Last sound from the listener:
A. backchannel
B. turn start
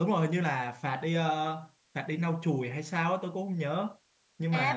B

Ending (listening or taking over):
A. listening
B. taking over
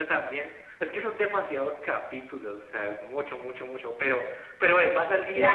B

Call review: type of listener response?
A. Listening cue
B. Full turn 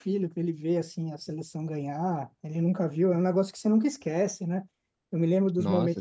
A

